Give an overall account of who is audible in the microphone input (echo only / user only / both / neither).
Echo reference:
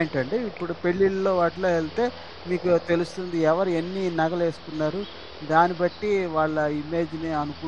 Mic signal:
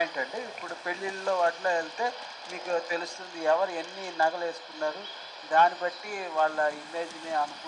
echo only